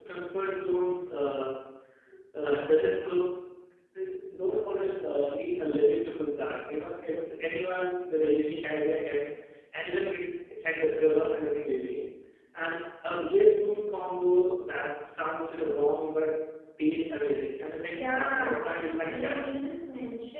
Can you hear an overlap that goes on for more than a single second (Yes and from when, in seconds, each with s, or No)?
Yes, from 17.9 s